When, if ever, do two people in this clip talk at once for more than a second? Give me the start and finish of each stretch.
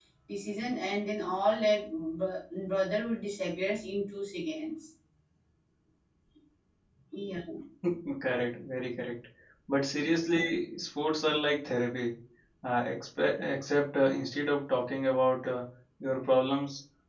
none

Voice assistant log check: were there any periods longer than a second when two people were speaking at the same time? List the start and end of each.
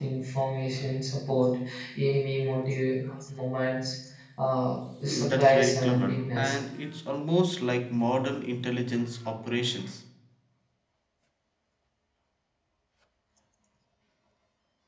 5.1-6.6

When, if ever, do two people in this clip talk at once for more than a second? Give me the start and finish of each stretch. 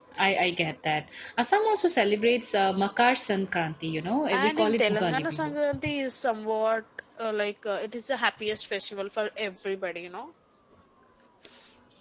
4.3-5.5

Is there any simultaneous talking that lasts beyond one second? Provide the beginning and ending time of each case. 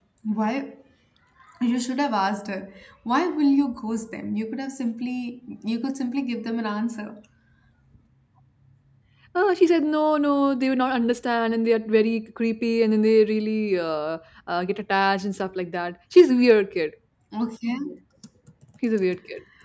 none

